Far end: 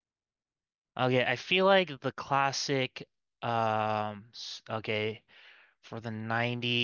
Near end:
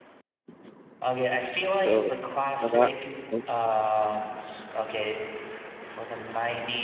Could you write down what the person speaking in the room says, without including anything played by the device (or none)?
So I'm not. nope,